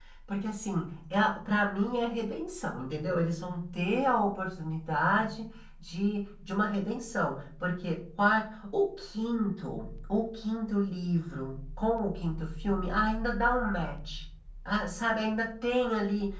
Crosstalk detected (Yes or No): No